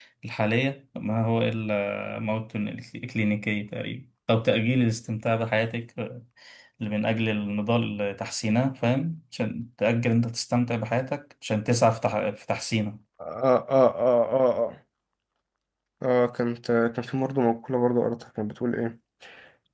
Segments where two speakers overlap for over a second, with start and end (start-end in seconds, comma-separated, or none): none